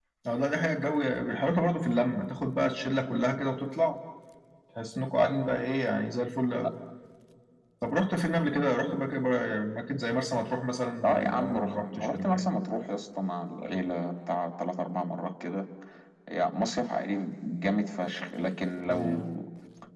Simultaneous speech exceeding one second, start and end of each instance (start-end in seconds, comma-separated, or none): 11.0-12.5